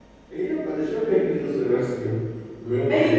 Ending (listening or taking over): taking over